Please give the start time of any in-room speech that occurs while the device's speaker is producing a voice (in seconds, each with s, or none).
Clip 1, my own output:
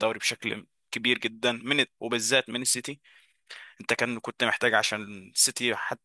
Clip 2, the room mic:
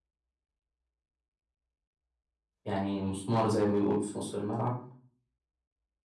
2.6 s